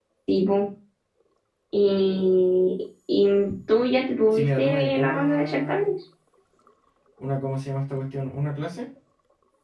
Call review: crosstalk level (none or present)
present